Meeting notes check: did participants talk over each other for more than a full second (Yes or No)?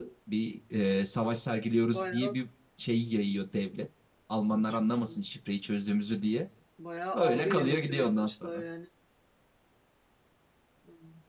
Yes